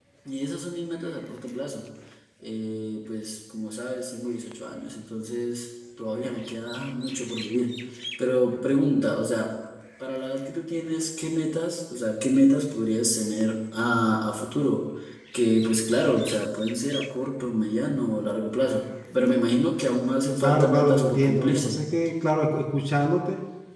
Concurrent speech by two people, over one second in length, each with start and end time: 20.4-21.8

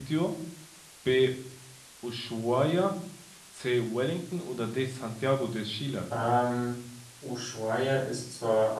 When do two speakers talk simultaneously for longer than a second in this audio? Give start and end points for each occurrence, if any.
none

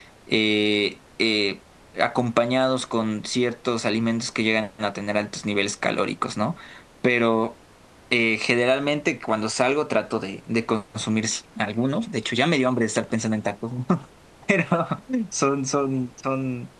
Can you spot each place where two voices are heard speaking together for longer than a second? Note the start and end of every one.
none

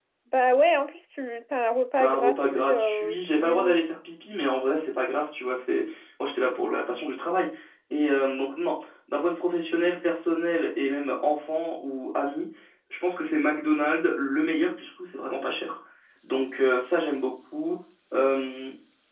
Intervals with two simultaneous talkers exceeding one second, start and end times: 2.0-3.8

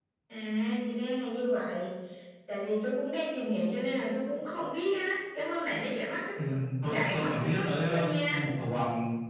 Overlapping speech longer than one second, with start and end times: 6.9-8.4

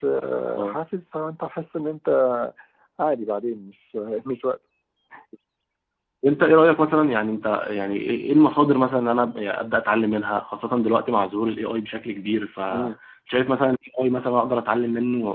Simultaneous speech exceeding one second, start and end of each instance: none

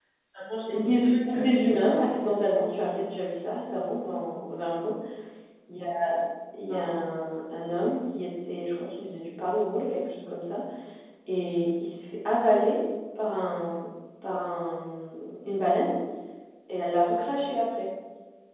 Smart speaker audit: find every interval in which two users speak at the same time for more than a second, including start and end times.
0.7-2.2

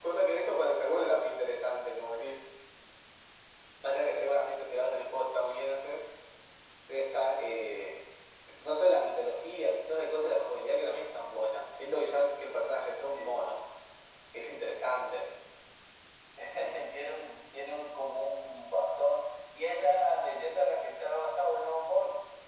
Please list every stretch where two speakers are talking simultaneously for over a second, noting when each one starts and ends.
none

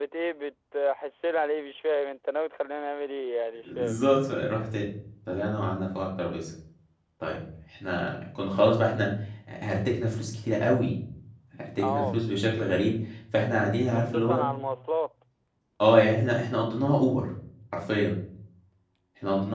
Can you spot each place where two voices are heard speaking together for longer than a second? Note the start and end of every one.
none

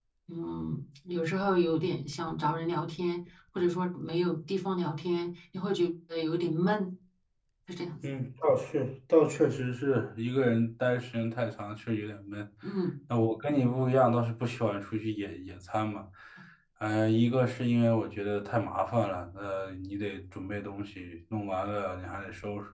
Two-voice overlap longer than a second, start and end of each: none

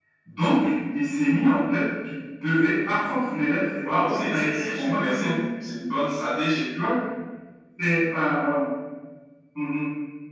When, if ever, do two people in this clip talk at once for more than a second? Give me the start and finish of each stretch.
3.8-5.3

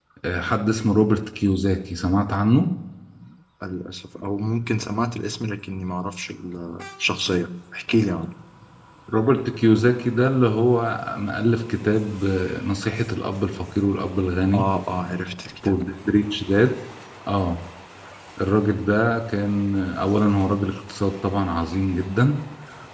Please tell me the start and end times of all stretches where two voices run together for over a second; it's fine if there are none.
none

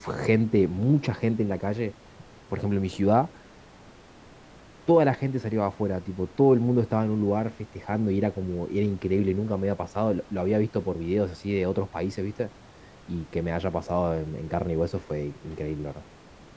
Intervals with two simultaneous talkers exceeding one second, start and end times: none

